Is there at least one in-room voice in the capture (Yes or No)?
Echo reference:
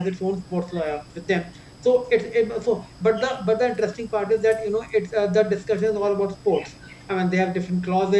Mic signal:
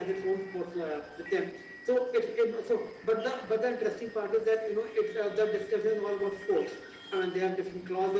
No